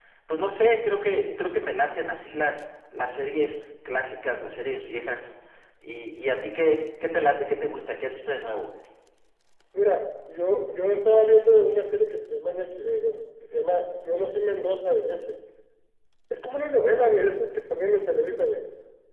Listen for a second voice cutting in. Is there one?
No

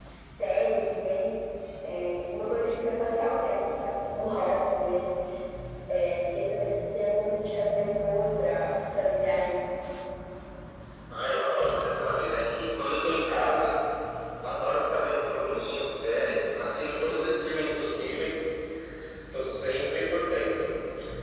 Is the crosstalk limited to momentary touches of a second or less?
Yes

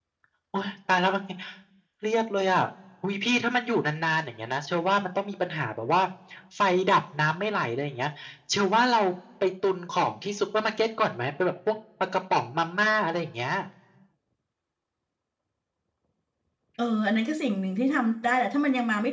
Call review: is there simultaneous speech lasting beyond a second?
No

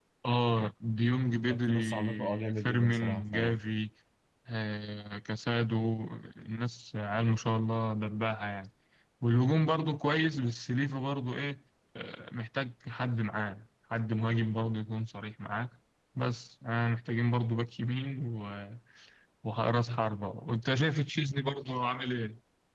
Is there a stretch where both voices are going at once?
Yes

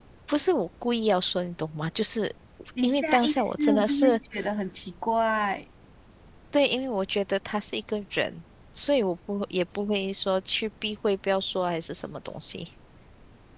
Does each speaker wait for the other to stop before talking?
No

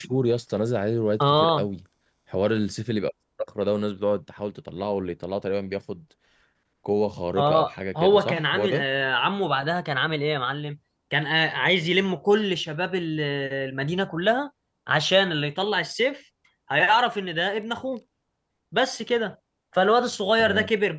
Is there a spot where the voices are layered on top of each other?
Yes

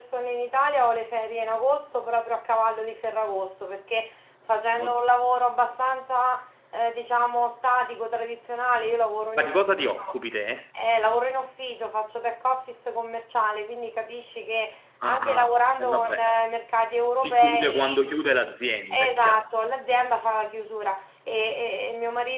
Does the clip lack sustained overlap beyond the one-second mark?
No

